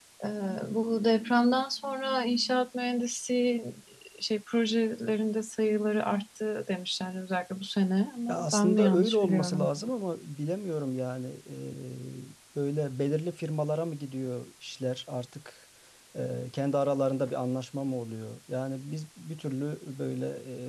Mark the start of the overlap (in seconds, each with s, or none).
8.3 s